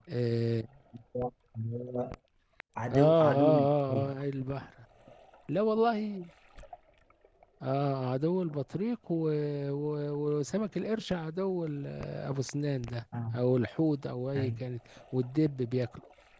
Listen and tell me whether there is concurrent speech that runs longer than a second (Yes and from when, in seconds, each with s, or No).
Yes, from 2.9 s